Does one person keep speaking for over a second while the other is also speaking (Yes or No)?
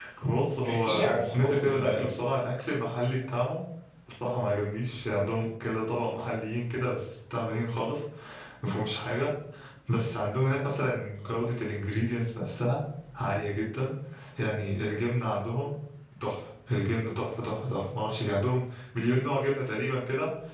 Yes